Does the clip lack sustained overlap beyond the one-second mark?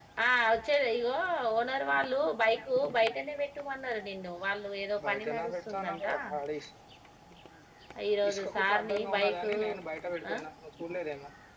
No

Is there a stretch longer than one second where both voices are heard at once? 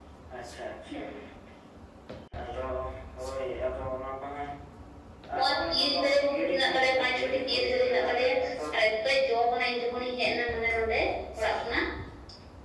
Yes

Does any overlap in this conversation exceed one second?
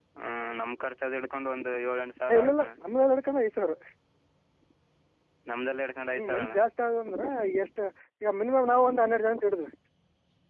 No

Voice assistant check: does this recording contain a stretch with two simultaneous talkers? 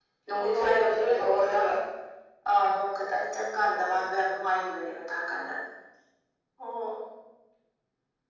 Yes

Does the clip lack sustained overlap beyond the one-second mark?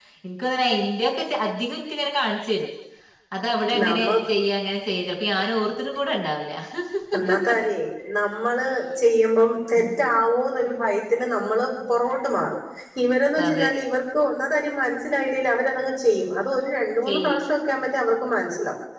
Yes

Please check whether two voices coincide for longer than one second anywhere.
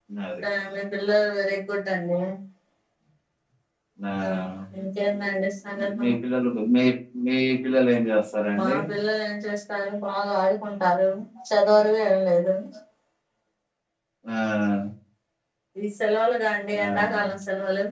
No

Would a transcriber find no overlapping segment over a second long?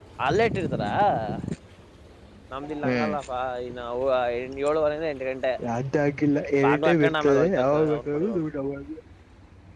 No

